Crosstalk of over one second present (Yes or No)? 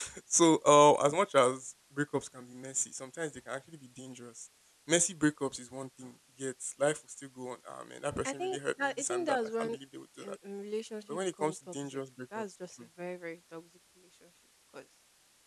Yes